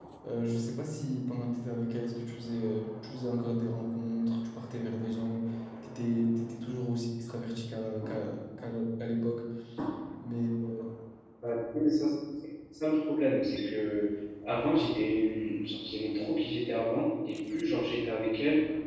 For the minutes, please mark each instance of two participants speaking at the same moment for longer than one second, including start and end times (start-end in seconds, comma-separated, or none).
none